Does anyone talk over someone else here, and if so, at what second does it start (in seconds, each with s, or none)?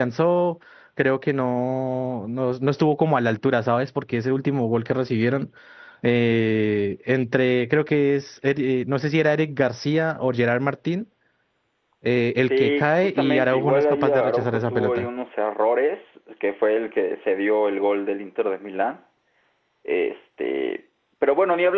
12.5 s